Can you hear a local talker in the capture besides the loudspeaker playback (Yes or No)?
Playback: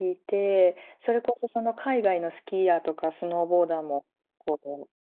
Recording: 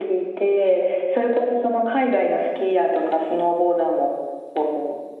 No